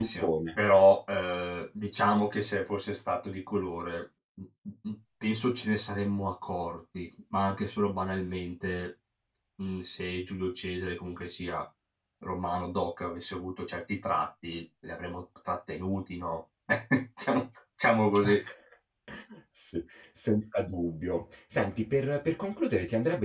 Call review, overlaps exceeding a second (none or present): none